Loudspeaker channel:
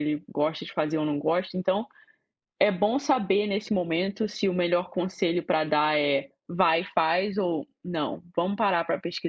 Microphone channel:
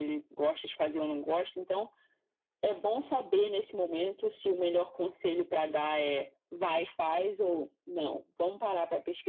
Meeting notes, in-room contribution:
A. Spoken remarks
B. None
B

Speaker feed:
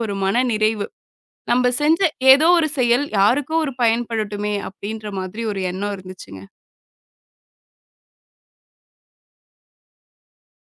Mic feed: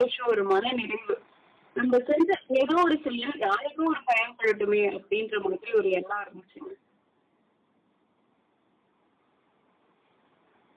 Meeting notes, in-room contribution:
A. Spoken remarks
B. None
B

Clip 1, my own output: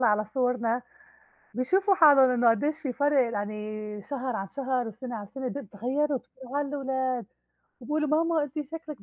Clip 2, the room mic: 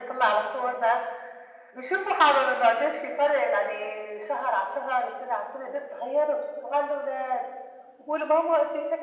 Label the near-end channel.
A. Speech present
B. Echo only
B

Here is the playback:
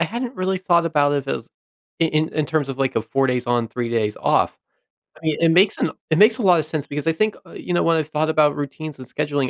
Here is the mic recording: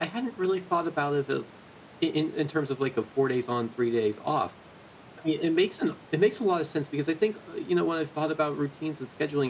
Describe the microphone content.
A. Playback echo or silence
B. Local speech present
A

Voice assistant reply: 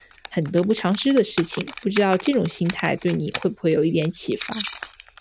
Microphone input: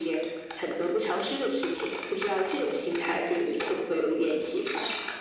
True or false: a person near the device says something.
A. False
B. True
A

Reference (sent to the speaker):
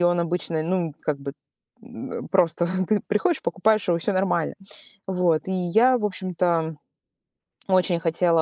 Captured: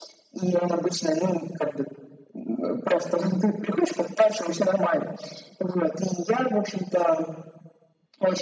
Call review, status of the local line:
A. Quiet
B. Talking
A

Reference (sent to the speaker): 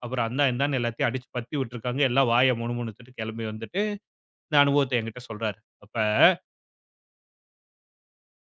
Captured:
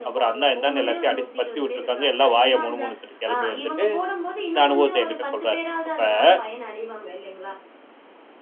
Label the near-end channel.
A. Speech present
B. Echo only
A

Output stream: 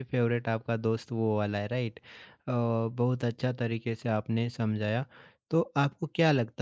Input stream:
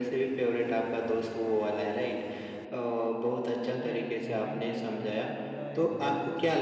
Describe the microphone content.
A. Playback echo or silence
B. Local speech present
B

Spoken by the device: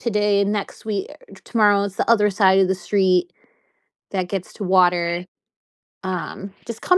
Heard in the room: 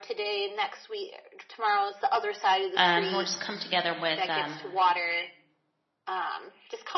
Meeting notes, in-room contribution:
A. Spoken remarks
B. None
A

